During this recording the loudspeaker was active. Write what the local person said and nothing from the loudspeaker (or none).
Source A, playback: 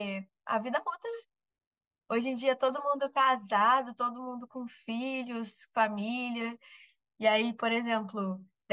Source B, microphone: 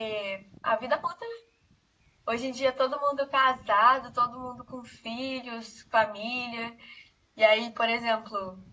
none